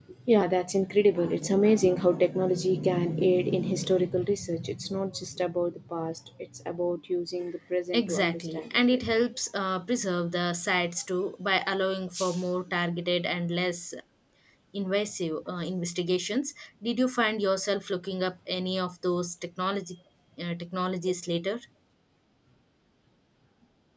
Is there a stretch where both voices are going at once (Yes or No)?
Yes